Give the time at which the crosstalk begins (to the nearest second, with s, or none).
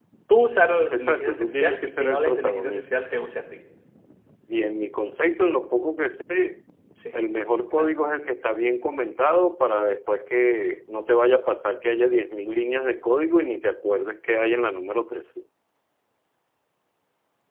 1 s